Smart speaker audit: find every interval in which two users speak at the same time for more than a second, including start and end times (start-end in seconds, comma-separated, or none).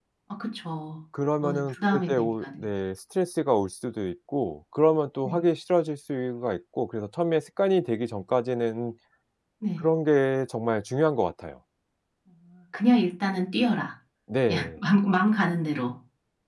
1.4-2.7